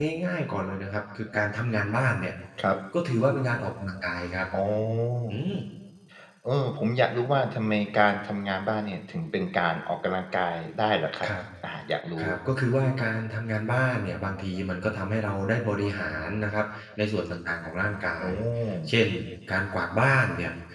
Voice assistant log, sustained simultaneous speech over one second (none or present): none